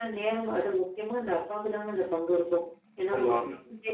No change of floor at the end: Yes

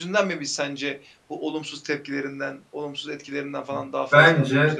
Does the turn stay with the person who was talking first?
No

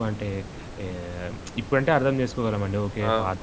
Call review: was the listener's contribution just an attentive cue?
No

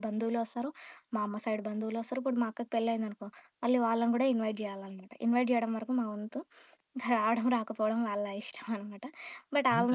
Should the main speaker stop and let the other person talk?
No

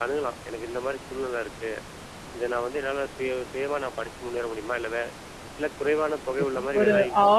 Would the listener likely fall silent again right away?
No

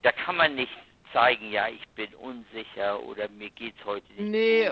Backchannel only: No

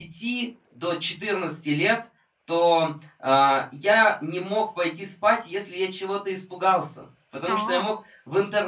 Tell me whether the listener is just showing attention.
Yes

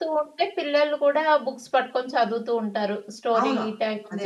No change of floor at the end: No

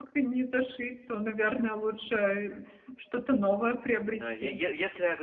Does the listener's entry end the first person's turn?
Yes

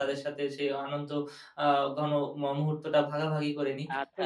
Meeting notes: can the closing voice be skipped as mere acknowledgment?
No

